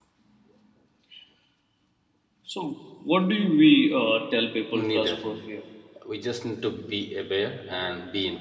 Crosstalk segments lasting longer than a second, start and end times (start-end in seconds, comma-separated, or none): none